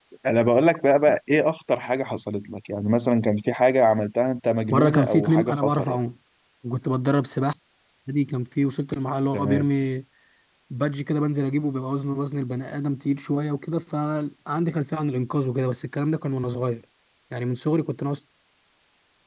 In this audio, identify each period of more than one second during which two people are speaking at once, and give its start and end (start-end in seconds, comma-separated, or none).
4.7-6.0